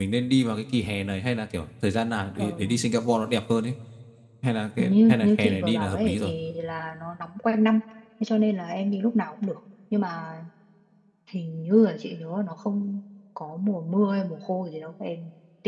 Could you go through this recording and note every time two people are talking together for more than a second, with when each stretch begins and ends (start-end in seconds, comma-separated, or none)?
4.8-6.3